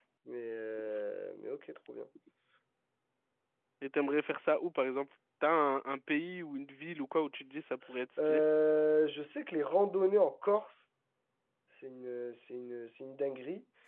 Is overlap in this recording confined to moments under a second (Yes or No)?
Yes